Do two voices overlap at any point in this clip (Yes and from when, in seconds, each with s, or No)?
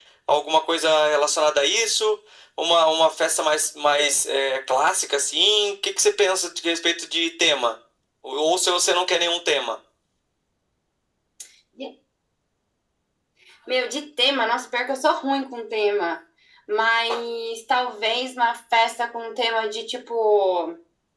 No